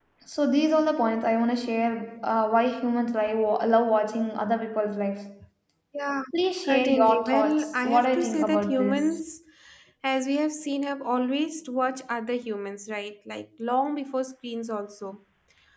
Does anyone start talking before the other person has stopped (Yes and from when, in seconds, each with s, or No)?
Yes, from 6.7 s